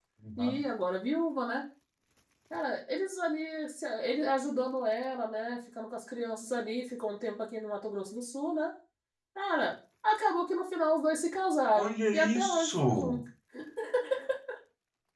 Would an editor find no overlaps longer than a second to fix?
No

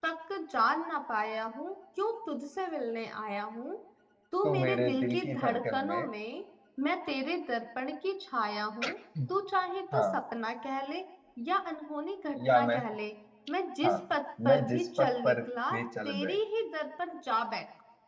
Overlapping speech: Yes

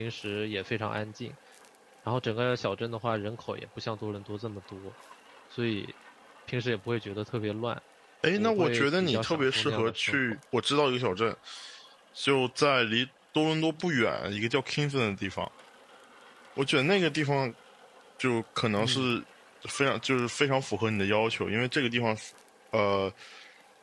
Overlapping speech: Yes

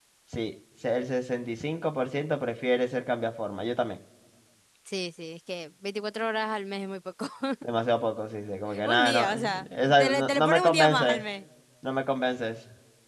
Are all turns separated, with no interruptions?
No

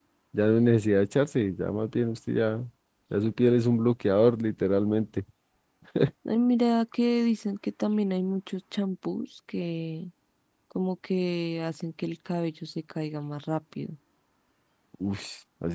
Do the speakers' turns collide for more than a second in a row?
No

